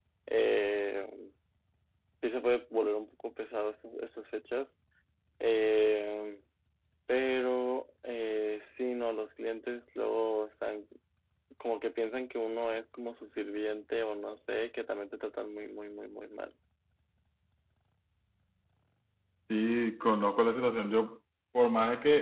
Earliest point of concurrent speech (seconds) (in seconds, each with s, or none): none